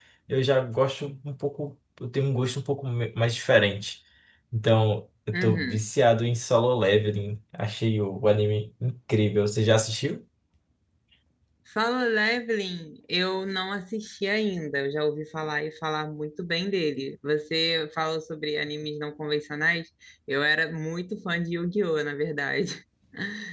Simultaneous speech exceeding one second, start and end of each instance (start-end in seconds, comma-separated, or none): none